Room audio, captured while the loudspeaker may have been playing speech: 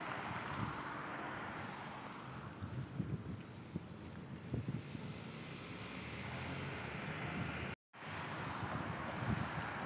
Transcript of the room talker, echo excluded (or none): none